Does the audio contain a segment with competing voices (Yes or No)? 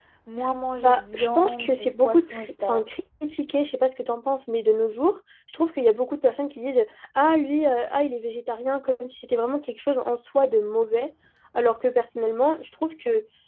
Yes